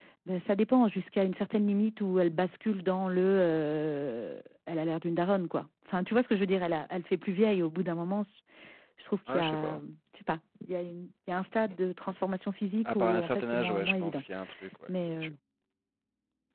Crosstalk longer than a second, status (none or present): present